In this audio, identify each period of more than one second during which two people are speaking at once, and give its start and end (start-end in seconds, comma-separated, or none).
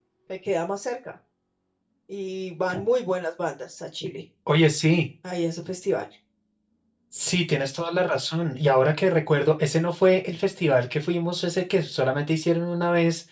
none